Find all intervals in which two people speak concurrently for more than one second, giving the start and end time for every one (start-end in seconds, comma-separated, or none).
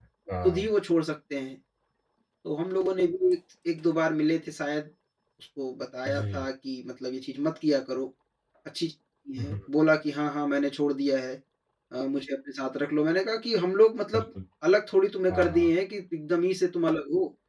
none